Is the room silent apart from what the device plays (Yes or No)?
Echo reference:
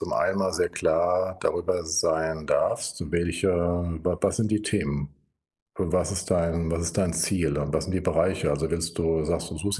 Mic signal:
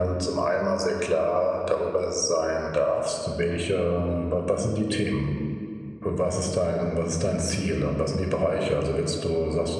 Yes